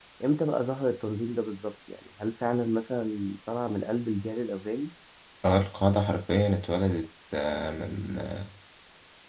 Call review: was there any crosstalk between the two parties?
No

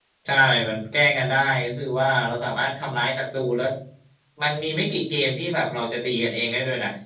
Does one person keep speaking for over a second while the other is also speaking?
No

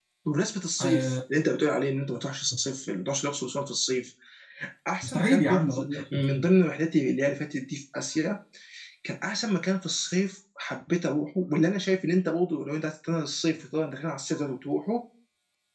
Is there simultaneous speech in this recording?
Yes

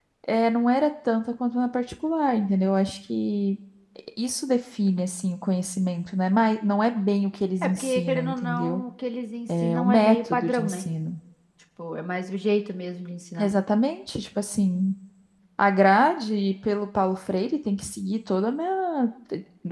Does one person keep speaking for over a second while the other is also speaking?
Yes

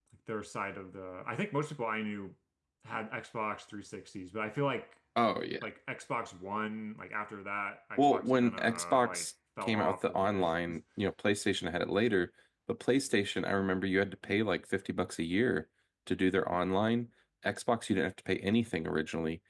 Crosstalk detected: Yes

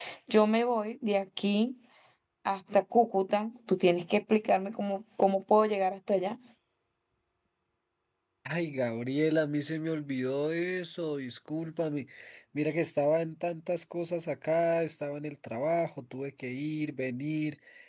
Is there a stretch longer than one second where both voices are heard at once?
No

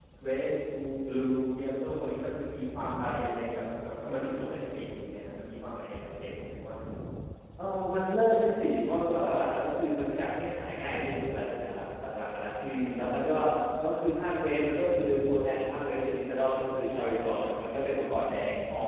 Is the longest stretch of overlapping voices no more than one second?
Yes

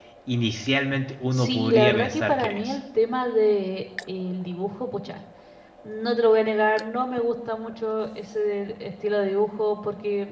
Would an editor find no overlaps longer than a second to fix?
No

